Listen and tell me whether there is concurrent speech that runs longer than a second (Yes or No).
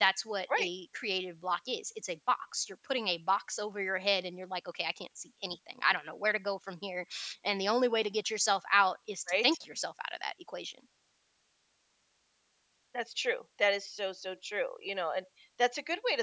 No